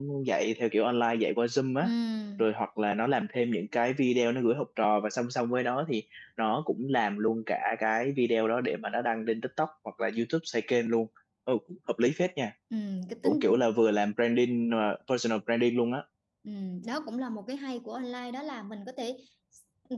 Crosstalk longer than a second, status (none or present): none